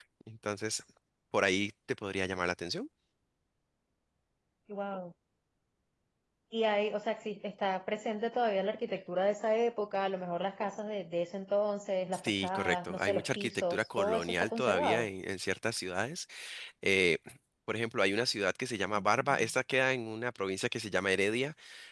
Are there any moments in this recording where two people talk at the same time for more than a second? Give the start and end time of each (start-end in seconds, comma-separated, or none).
12.1-15.1